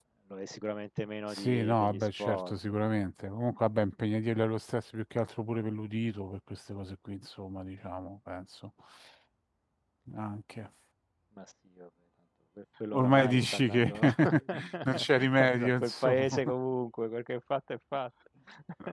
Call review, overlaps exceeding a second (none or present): present